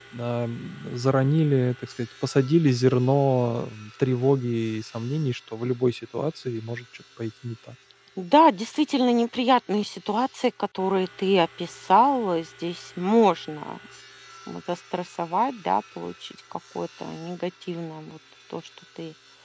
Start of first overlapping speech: none

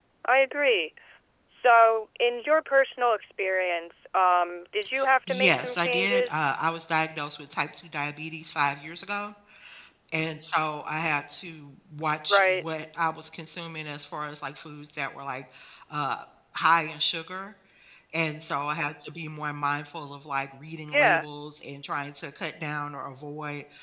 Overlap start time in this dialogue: 5 s

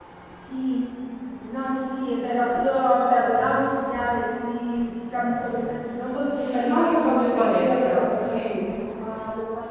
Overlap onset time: 7 s

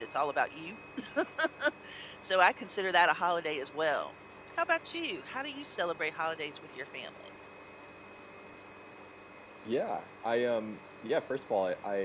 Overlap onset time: none

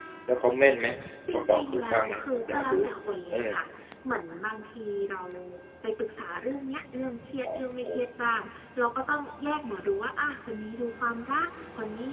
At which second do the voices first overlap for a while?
1 s

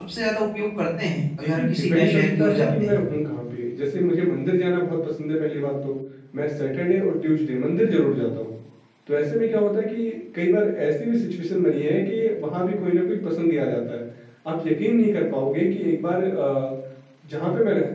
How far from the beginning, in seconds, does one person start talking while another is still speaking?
1 s

